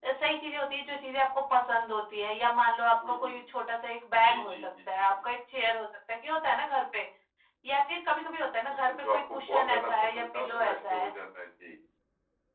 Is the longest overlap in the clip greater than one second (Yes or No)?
Yes